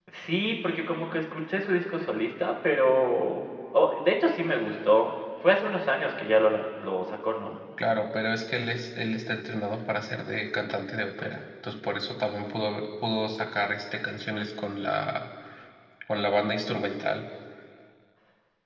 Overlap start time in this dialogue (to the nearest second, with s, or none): none